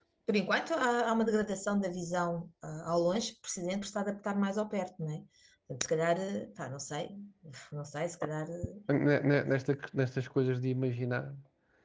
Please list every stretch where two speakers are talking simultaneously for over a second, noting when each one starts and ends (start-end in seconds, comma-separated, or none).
none